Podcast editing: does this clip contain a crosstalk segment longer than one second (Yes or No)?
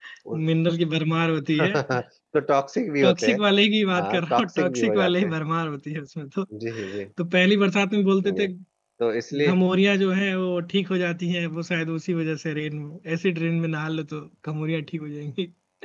Yes